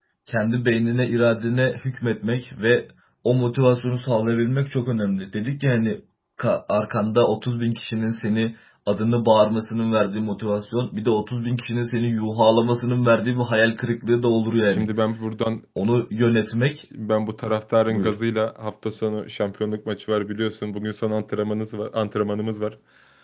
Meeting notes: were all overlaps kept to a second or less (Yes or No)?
Yes